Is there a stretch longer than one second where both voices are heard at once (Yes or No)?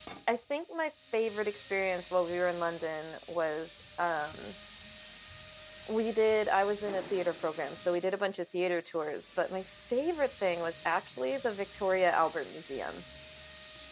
No